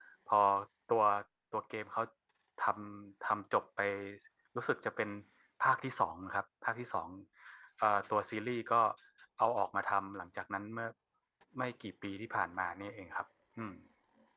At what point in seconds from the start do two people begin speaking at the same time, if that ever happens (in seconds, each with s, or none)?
none